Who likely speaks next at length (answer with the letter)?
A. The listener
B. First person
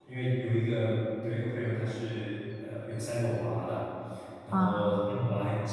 B